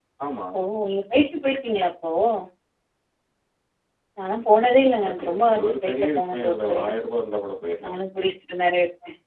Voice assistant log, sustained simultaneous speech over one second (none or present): present